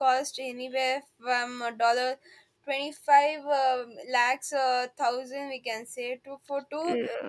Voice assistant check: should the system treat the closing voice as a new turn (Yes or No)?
Yes